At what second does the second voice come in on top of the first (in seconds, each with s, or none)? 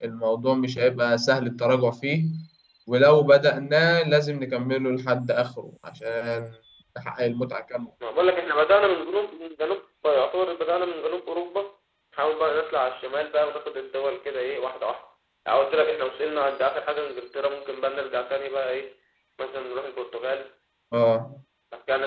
none